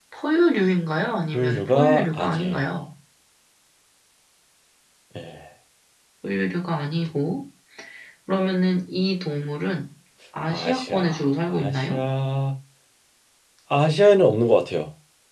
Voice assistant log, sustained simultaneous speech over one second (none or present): present